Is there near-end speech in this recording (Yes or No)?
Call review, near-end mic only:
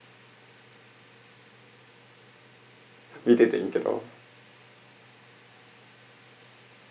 Yes